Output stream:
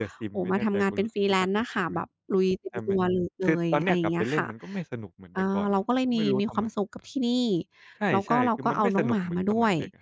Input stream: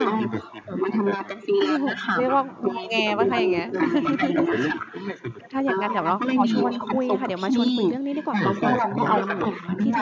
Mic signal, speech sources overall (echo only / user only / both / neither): both